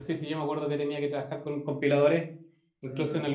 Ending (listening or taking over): listening